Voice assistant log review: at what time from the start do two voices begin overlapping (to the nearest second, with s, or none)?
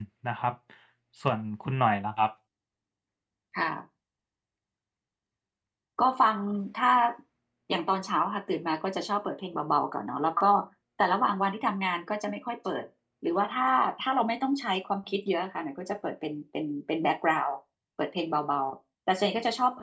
none